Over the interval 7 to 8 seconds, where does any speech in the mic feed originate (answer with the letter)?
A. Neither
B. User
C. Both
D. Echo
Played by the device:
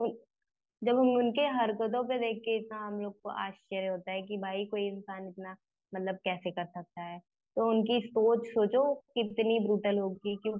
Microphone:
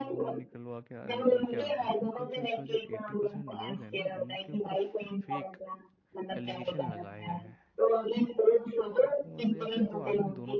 C